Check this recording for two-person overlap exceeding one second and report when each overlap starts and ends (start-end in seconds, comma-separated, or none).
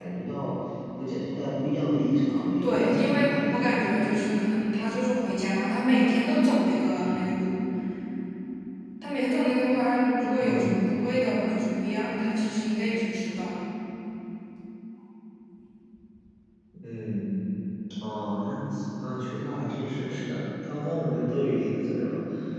2.6-4.1